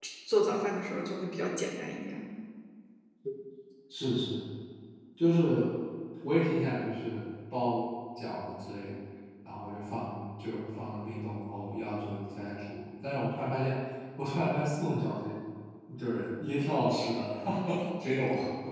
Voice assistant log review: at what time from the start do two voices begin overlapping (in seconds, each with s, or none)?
none